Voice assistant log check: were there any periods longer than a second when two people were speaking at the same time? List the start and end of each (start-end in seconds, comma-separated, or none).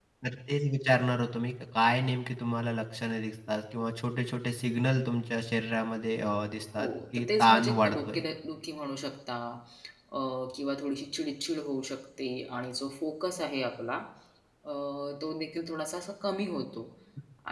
6.8-8.2